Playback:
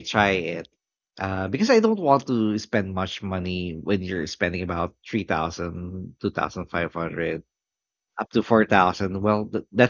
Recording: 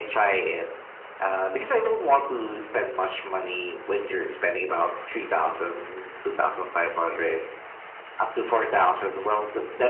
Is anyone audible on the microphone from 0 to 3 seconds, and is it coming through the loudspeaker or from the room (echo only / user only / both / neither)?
echo only